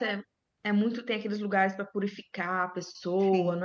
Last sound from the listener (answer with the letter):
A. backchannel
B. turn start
B